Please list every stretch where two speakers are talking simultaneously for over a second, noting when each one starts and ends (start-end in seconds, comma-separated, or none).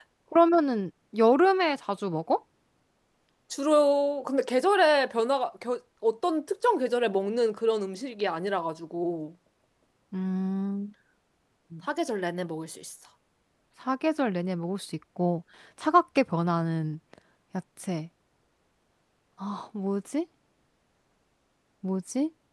none